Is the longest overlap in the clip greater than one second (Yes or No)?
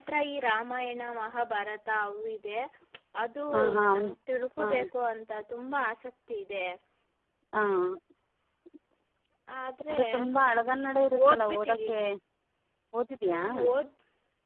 Yes